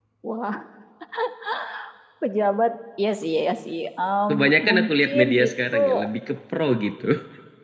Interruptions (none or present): present